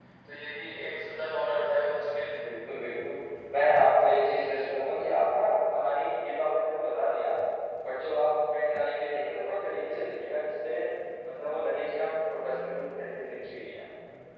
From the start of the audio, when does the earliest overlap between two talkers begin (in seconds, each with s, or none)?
none